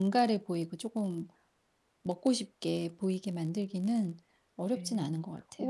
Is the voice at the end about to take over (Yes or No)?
Yes